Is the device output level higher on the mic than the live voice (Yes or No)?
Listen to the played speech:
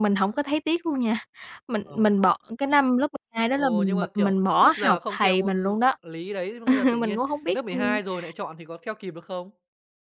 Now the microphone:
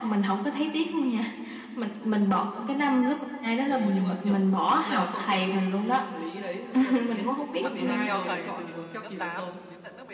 Yes